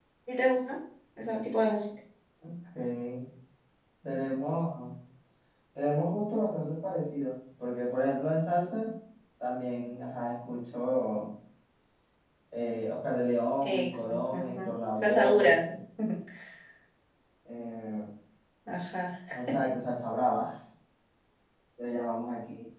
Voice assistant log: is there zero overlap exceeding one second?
No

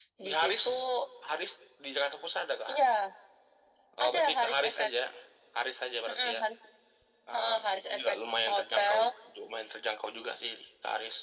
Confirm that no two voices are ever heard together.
No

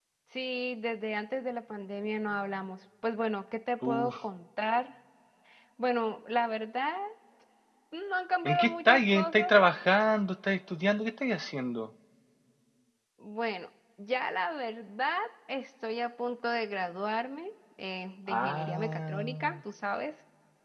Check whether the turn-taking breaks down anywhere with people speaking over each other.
Yes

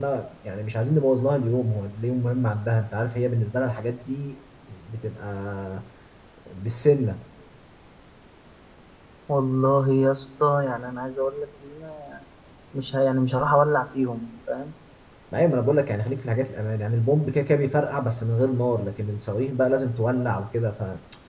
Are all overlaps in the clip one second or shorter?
Yes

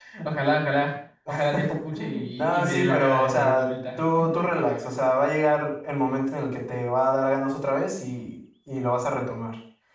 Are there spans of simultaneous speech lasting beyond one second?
Yes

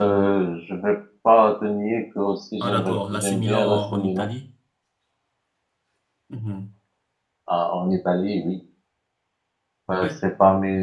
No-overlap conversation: No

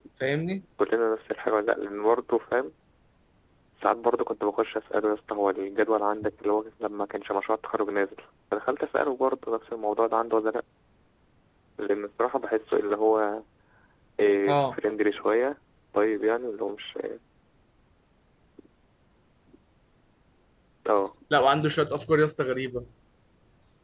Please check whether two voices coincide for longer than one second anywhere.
No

